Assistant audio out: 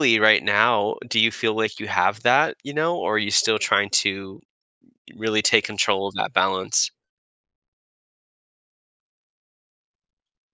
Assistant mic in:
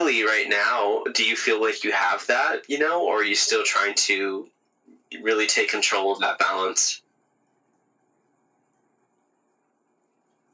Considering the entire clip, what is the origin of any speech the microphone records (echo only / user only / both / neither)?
echo only